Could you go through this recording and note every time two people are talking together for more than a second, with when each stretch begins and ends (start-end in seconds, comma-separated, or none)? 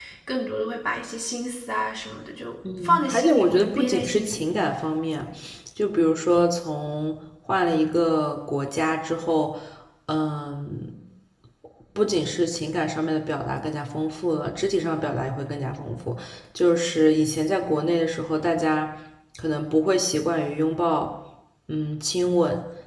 2.8-4.4